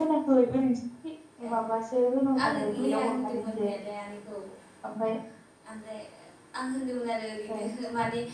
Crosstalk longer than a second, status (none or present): present